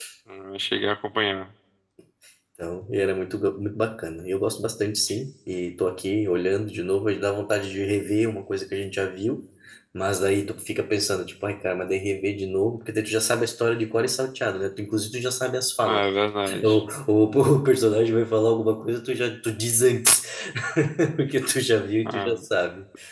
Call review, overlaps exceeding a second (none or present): none